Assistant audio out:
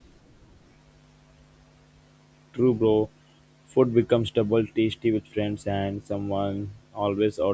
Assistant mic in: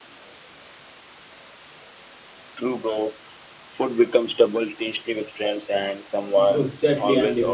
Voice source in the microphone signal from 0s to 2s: neither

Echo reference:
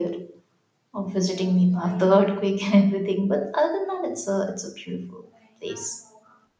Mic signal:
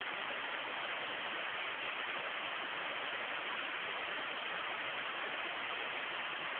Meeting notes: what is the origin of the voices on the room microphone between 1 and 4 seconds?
neither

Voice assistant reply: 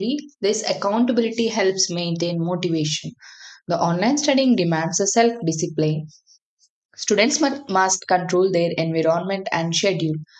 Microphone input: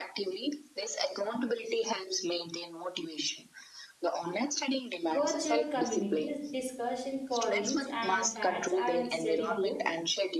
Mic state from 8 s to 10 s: both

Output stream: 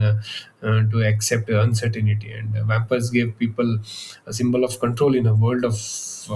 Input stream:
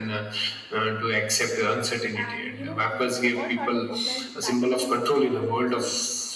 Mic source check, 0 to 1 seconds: echo only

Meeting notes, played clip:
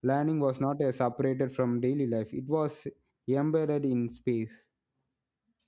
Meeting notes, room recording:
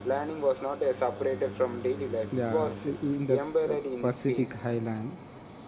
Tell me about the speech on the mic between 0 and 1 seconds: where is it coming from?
echo only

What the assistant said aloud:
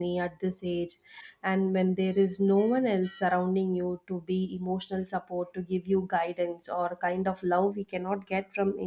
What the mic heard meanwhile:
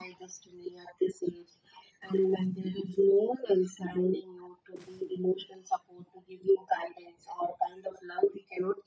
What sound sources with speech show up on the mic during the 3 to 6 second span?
echo only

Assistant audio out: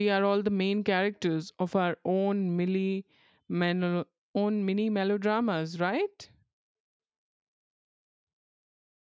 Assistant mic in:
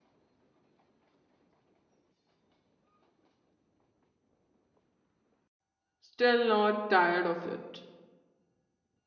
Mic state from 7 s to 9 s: user only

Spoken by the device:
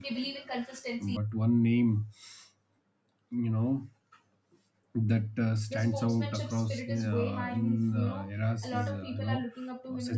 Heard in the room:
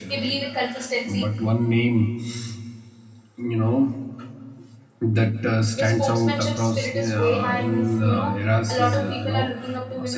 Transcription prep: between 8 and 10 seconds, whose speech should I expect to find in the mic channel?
echo only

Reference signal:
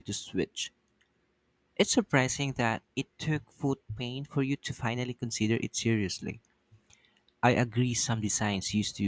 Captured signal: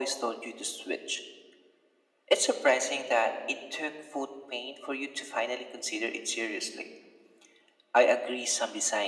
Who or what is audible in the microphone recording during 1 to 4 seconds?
echo only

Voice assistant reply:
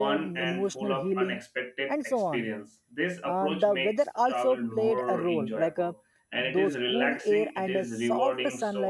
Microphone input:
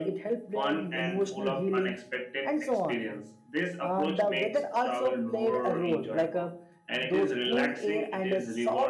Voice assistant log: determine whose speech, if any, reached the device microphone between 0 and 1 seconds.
echo only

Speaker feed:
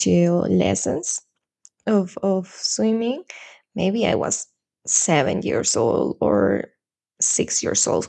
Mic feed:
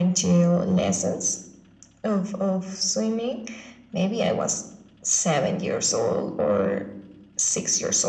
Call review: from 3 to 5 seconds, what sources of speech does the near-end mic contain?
echo only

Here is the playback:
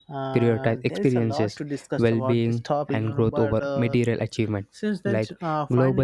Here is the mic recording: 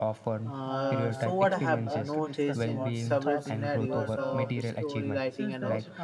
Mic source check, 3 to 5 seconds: both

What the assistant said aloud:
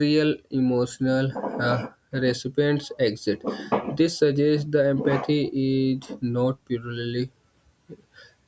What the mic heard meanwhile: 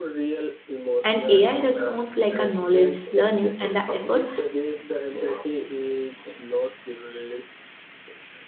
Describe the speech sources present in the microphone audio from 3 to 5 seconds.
both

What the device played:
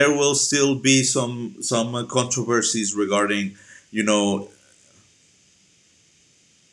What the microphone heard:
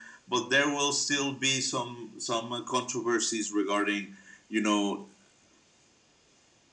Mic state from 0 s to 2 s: echo only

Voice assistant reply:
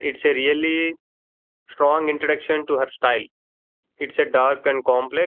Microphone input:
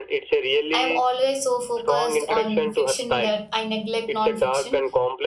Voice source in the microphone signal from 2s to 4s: both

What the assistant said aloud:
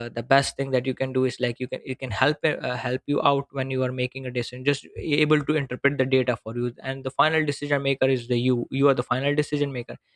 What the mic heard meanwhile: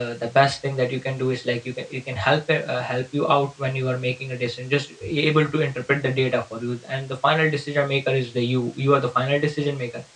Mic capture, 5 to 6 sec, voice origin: echo only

